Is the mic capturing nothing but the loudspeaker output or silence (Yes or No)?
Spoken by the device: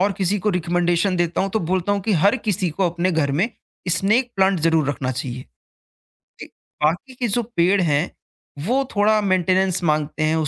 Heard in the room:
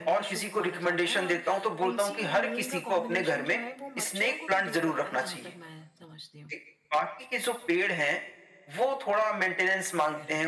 No